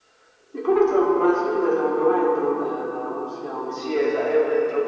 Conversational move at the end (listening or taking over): taking over